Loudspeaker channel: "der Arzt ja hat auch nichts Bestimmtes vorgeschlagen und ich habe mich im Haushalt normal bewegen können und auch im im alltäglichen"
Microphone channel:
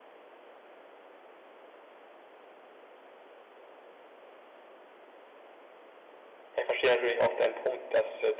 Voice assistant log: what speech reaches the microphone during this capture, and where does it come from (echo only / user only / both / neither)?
user only